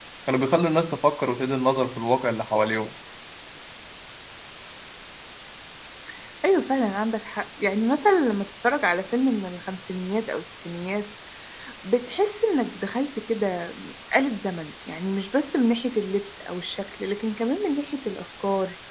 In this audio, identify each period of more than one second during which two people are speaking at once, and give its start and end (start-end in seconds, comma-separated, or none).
none